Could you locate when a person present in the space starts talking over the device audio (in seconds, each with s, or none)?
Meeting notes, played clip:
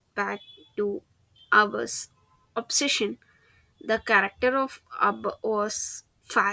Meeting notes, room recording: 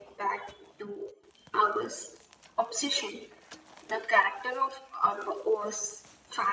none